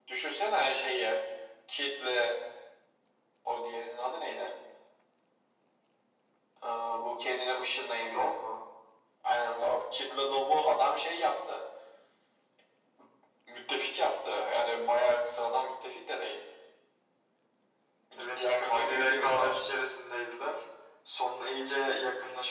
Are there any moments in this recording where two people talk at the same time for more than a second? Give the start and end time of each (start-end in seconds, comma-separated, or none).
18.2-19.6